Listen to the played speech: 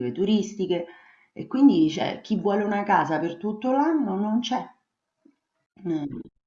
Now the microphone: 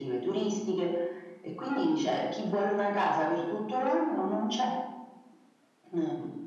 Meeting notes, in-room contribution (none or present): none